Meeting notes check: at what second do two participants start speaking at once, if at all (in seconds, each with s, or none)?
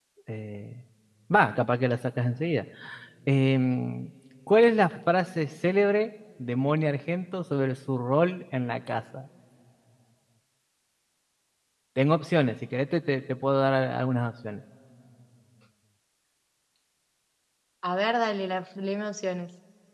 none